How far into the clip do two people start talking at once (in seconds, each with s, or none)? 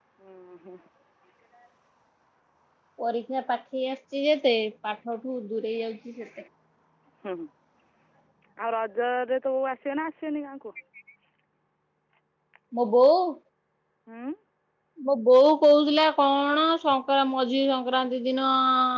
none